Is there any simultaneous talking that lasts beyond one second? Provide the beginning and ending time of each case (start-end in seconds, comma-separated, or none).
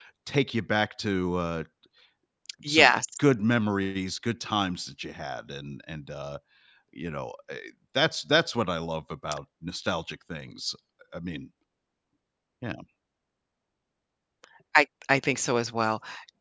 none